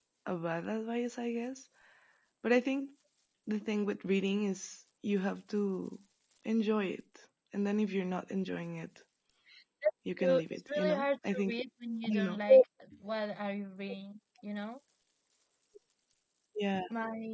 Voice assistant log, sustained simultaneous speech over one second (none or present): present